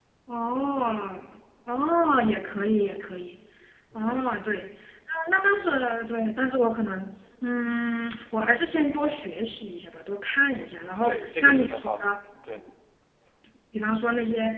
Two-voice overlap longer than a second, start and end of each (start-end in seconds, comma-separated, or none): 10.5-12.0